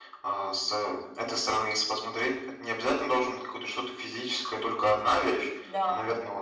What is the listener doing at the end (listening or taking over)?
listening